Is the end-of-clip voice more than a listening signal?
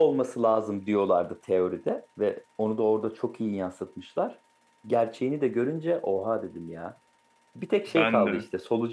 No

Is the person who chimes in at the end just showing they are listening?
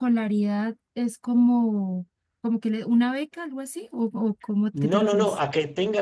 No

